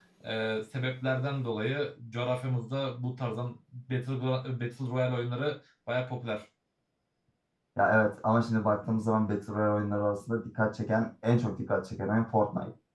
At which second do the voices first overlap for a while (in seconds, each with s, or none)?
none